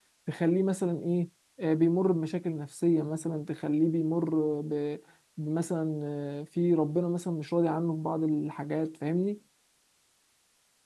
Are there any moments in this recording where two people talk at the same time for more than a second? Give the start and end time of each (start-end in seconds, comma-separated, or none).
none